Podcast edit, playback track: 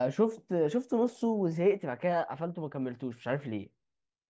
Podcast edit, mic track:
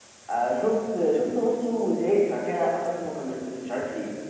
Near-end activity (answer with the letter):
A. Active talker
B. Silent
B